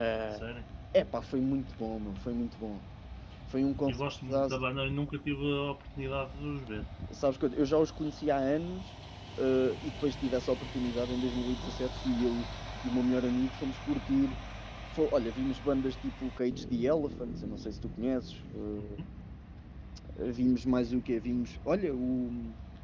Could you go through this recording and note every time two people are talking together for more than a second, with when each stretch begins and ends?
none

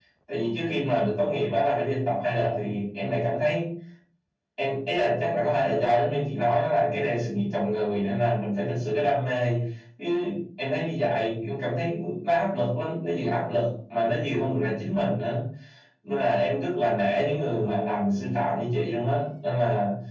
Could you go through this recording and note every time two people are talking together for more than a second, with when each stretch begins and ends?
none

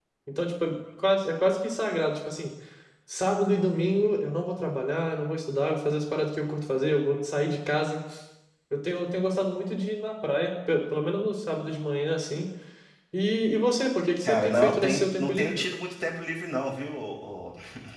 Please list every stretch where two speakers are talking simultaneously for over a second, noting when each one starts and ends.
14.2-15.6

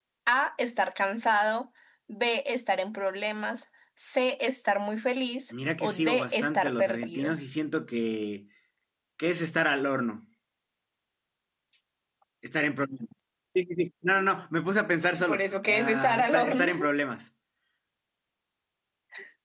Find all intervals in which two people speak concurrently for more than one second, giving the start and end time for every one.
5.8-7.3, 15.2-16.9

